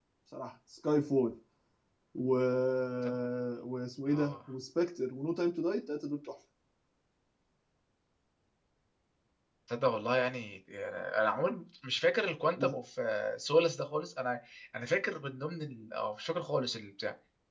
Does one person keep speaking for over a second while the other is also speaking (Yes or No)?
No